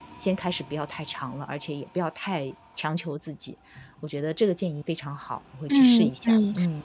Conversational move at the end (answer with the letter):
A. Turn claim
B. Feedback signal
A